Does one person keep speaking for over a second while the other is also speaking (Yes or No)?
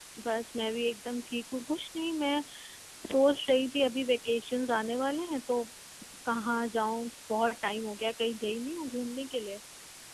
No